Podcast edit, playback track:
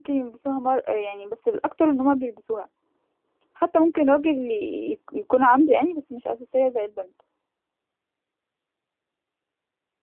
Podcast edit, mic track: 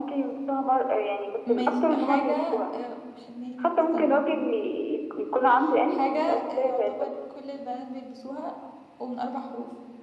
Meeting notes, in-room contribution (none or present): present